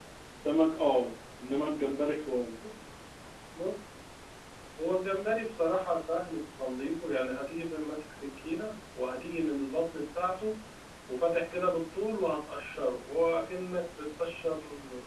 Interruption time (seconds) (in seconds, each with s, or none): none